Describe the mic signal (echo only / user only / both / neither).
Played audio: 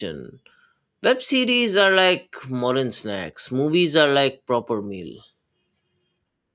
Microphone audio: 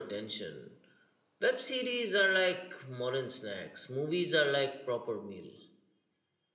echo only